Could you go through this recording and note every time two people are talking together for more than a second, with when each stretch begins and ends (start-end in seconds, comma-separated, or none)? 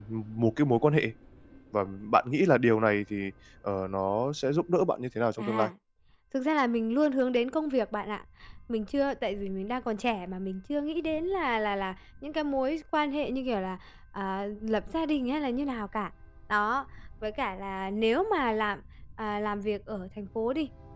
none